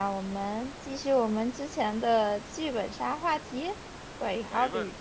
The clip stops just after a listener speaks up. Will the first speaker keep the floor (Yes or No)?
No